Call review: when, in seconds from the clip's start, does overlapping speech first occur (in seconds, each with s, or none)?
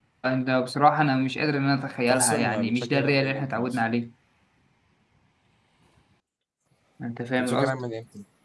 2.1 s